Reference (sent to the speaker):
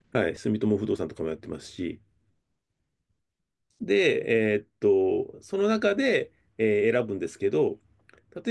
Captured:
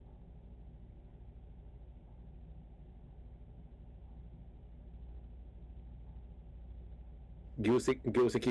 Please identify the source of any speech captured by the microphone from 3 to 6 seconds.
neither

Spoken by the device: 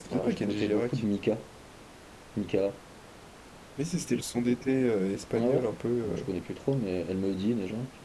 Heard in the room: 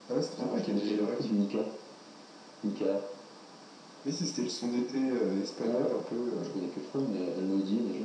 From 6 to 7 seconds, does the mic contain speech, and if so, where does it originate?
echo only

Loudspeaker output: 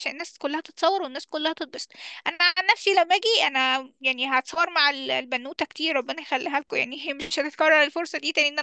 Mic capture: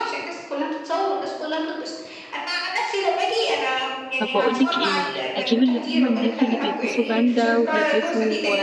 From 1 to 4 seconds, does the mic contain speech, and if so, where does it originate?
echo only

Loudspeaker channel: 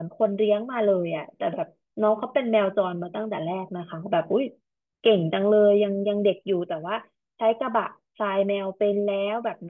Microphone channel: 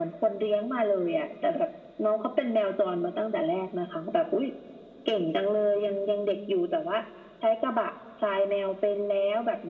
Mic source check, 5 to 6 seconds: echo only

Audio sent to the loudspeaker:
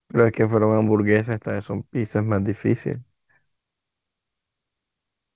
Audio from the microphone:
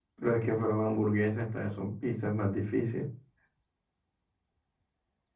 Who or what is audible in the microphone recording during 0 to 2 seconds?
echo only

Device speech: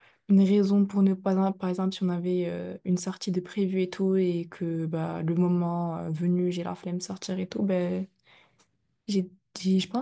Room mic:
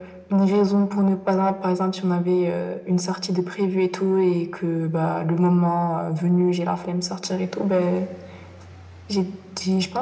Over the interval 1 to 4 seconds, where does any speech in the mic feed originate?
echo only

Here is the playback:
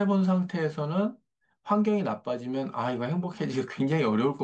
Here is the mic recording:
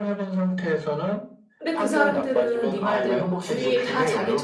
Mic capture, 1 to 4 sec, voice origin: both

